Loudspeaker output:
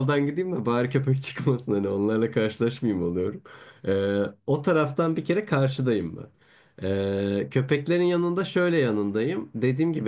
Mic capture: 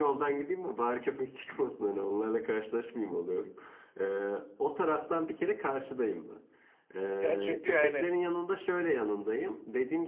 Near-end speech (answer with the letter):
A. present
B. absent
A